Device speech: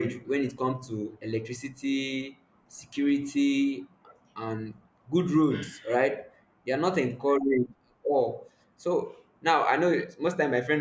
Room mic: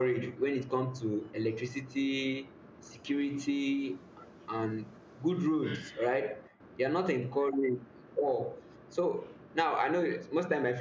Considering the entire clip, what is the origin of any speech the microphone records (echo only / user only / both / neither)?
echo only